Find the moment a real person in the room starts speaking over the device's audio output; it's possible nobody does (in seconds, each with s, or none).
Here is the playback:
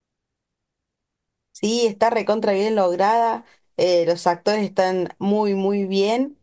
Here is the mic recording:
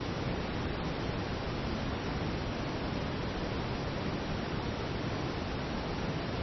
none